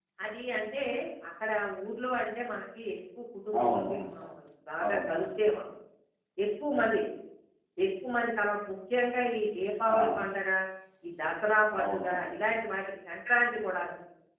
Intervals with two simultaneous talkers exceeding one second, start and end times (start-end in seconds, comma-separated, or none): none